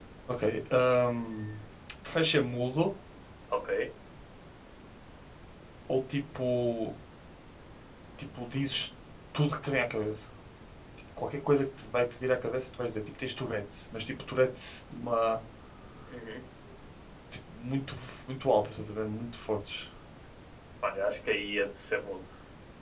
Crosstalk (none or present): none